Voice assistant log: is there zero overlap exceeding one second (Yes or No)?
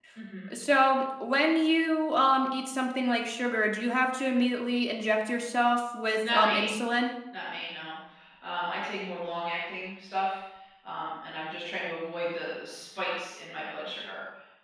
Yes